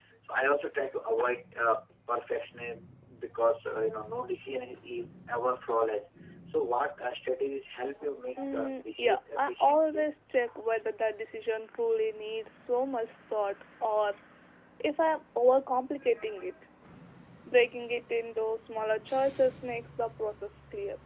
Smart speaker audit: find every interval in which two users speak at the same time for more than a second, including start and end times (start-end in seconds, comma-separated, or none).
8.4-10.0